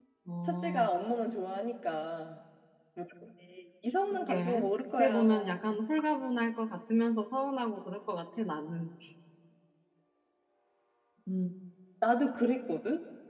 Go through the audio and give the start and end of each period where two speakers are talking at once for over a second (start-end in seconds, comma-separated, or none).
4.1-5.6